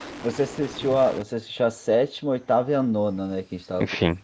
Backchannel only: No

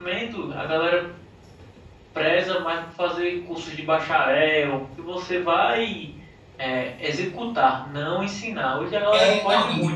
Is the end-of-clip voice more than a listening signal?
Yes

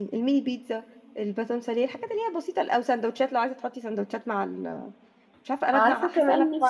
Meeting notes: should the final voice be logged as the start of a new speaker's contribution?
Yes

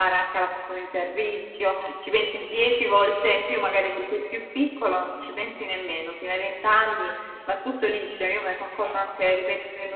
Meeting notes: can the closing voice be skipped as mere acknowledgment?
Yes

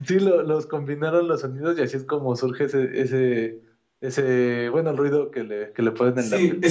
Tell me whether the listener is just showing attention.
No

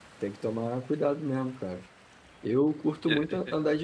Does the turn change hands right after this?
No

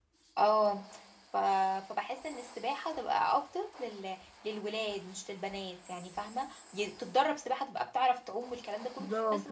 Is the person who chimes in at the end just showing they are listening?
No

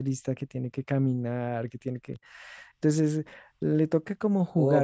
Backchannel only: No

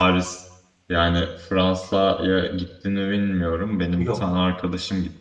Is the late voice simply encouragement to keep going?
Yes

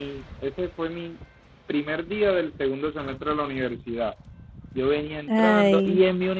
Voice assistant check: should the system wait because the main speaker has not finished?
Yes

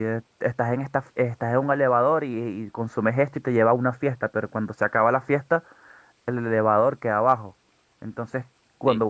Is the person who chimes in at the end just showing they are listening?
No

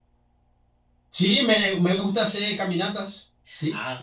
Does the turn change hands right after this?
Yes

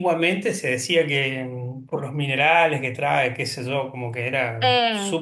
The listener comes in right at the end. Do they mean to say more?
Yes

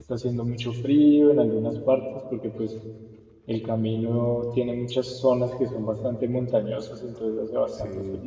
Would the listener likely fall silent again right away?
Yes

